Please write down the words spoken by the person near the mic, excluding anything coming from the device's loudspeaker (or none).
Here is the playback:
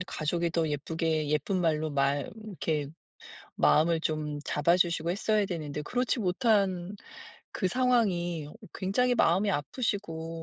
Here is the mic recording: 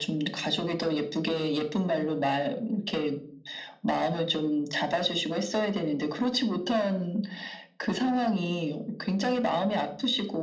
none